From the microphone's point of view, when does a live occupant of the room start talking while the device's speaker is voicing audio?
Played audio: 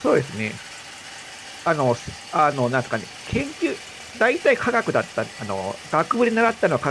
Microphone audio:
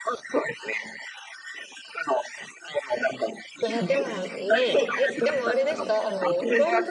4 s

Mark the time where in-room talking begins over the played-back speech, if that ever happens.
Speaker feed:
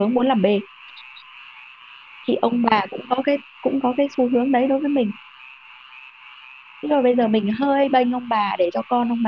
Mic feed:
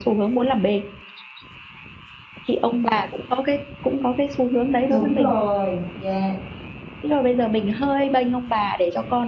5 s

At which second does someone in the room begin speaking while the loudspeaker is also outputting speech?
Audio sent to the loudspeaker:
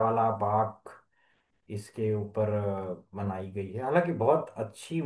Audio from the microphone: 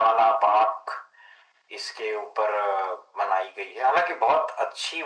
none

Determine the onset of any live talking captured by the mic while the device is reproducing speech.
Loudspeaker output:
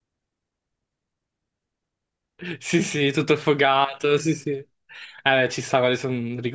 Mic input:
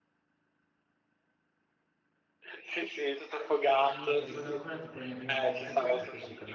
4 s

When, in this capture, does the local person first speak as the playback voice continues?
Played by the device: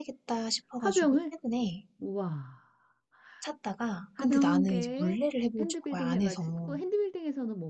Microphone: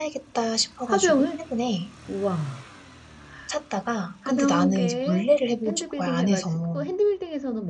none

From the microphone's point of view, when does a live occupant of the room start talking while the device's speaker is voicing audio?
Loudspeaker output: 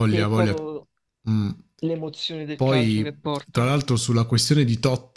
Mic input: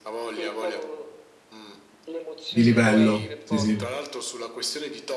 2 s

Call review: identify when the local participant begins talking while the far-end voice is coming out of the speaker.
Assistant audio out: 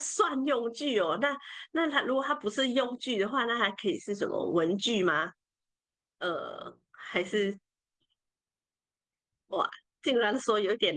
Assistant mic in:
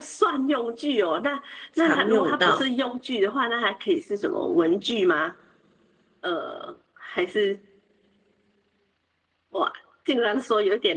2 s

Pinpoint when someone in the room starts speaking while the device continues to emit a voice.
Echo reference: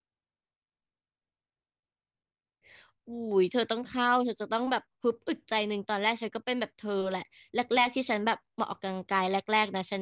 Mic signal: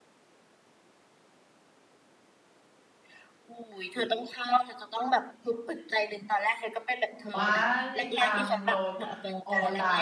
7 s

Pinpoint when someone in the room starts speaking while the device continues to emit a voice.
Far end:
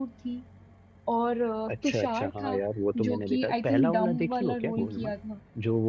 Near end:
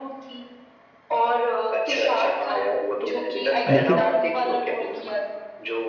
4 s

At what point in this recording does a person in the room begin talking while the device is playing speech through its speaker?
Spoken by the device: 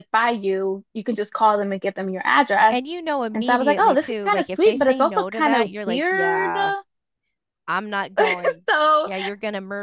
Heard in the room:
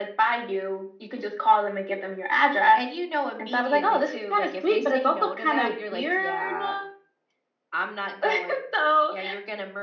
none

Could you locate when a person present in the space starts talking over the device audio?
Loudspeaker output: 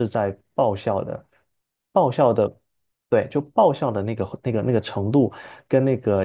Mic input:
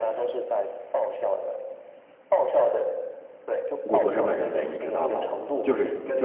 4 s

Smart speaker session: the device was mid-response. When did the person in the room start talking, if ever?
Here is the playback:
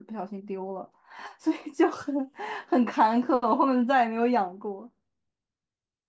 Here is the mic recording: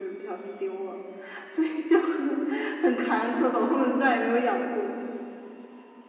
none

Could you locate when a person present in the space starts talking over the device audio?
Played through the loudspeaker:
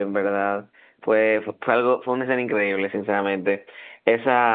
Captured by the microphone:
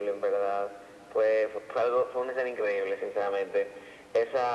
none

